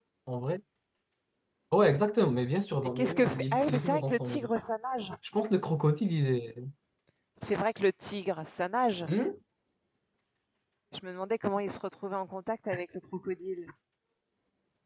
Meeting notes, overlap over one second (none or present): present